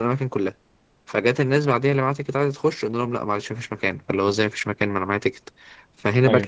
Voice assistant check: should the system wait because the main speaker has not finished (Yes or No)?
Yes